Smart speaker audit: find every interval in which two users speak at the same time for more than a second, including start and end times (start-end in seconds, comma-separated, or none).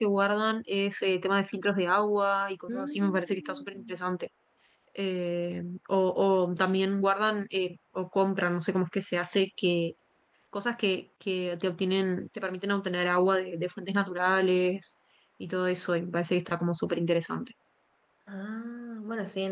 2.7-3.9